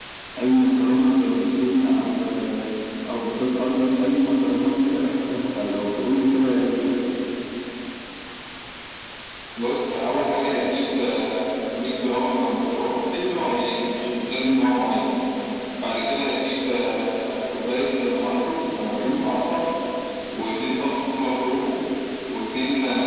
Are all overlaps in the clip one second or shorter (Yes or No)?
Yes